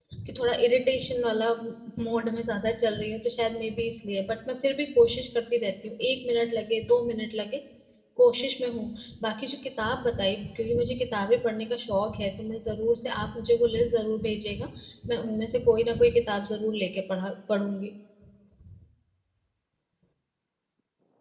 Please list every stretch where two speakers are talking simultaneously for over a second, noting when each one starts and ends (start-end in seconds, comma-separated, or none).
none